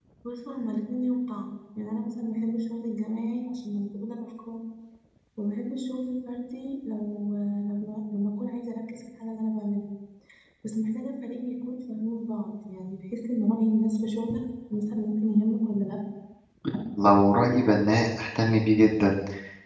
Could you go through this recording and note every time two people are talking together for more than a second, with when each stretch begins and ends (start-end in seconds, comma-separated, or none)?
none